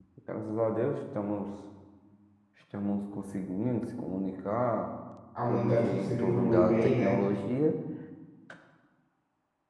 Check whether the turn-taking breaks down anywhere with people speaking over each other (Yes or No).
Yes